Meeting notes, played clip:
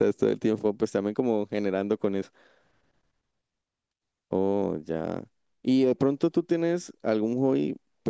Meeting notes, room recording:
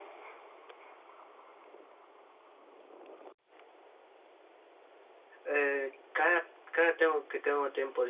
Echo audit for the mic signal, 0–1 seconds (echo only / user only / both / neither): neither